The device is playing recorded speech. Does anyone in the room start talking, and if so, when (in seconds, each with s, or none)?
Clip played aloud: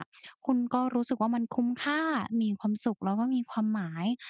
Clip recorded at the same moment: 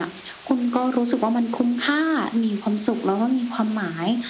none